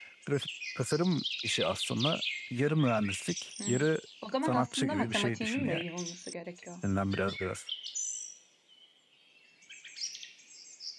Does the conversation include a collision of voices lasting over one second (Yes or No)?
Yes